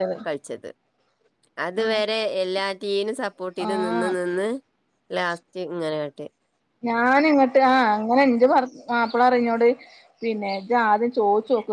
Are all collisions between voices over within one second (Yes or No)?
Yes